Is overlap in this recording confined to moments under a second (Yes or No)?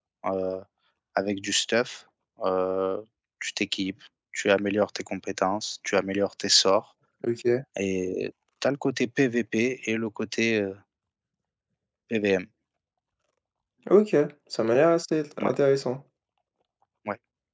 Yes